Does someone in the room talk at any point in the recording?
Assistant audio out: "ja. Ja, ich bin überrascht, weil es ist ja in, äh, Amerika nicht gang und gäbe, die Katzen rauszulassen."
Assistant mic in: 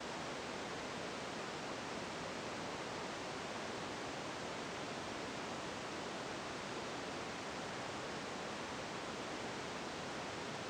No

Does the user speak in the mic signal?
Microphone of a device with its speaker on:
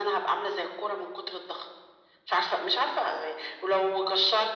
No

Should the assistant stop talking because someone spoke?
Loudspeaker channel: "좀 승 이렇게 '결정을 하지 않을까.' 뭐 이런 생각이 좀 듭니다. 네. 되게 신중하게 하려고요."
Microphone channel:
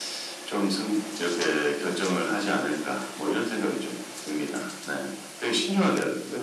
No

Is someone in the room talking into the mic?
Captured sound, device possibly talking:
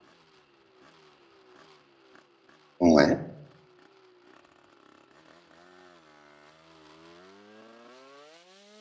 Yes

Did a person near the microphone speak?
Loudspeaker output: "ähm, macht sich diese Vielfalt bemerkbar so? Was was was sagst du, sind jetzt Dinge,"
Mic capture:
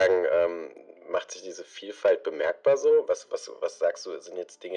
No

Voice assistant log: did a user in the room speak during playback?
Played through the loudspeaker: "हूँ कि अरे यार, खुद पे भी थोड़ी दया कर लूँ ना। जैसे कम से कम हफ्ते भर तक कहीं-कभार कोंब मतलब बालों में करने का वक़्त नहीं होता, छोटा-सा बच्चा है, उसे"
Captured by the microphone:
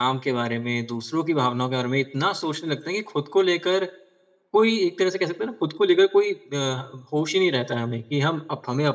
Yes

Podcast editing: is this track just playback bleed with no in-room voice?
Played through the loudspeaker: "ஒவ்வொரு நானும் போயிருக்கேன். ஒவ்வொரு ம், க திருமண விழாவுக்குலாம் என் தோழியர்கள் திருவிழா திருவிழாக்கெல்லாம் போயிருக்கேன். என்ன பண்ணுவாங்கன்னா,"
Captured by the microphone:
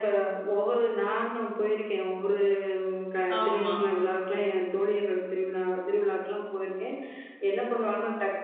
No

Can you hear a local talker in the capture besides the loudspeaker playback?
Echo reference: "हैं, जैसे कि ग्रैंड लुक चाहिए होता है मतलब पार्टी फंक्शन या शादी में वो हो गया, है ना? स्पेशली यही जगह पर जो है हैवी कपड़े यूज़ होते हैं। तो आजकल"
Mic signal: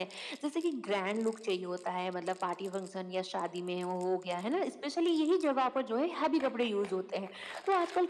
No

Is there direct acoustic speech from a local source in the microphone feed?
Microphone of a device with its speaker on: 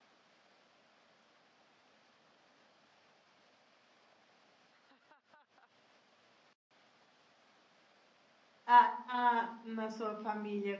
Yes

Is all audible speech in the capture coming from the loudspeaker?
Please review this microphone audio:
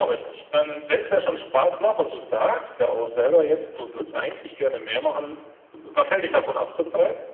Yes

